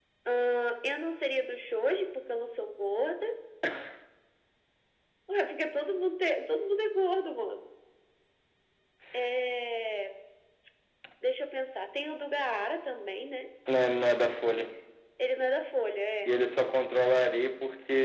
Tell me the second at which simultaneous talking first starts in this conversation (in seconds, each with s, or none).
none